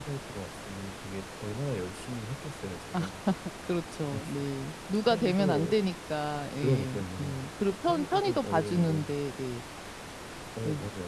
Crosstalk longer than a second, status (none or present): present